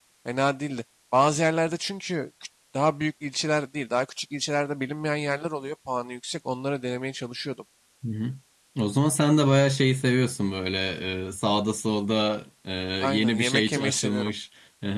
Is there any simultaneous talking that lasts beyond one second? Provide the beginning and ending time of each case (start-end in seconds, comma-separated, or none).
13.1-14.3